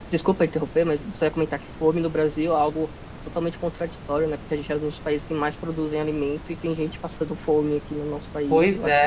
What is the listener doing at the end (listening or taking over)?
taking over